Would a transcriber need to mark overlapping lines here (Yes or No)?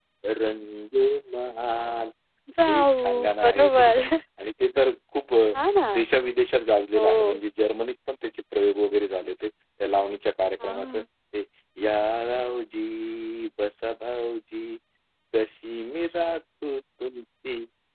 Yes